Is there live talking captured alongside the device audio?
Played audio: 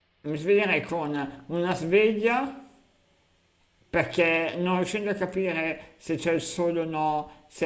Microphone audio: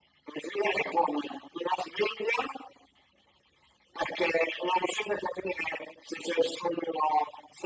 No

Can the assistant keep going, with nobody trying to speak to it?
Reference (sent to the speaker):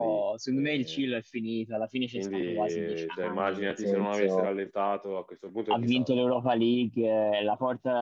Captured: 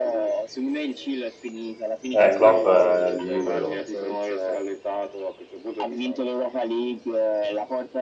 No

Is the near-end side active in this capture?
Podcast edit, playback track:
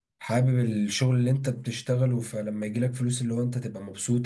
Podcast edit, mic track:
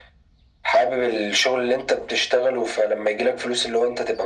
No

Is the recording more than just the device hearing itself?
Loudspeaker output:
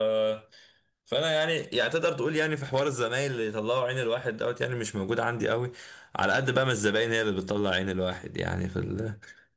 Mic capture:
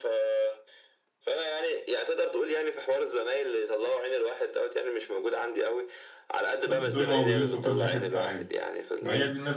Yes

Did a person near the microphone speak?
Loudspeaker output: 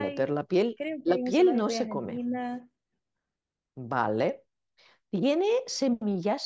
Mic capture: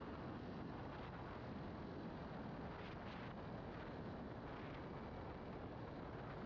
No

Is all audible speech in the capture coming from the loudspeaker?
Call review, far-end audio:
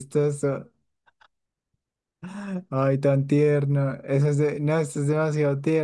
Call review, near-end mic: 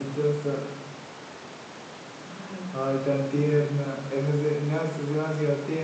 Yes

